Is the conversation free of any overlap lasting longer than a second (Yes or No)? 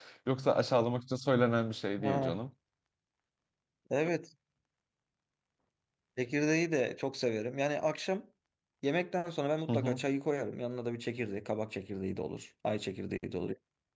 Yes